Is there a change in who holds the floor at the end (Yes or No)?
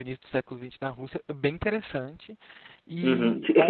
Yes